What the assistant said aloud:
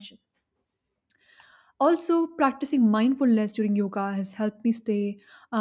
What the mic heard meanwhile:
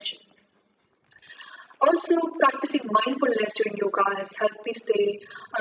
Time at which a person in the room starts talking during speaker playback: none

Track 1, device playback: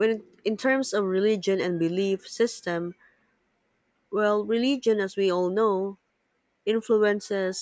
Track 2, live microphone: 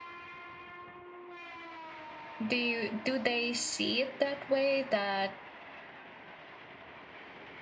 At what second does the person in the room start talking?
2 s

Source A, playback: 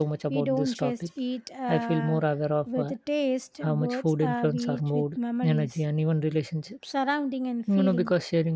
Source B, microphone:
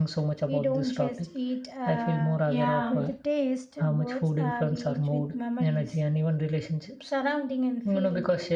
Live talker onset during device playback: 2 s

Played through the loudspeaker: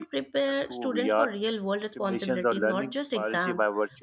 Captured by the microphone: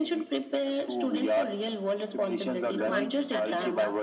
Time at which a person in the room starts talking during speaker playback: 3 s

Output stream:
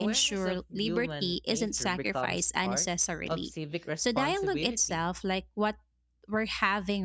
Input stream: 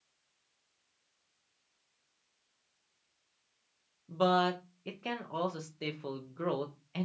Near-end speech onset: 4 s

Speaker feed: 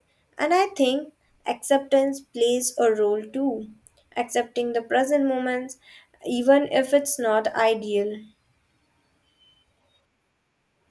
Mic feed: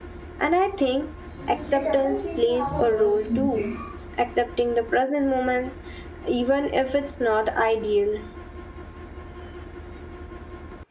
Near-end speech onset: 1 s

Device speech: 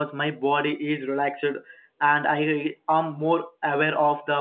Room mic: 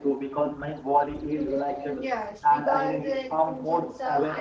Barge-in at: 1 s

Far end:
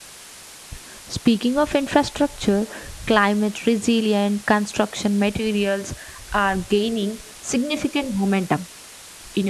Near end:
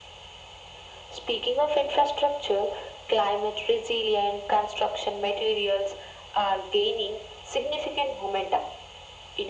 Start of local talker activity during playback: none

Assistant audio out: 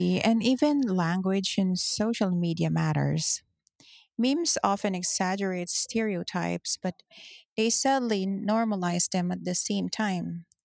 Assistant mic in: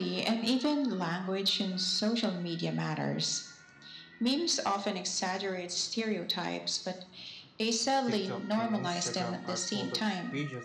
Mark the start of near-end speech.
8 s

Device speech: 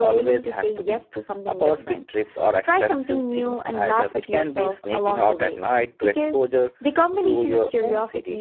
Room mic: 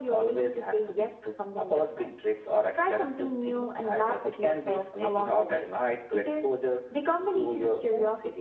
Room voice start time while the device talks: none

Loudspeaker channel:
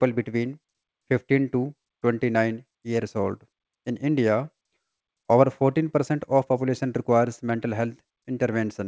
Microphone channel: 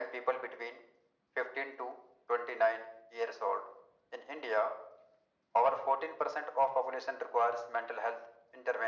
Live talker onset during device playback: none

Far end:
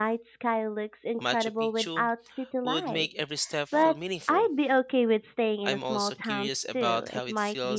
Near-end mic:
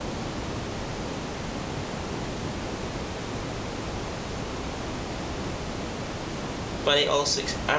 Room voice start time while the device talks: 7 s

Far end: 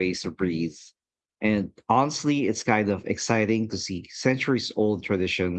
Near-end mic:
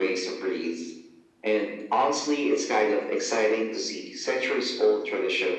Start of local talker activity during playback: none

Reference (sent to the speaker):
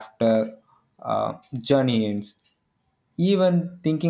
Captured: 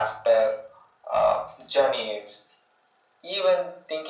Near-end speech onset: none

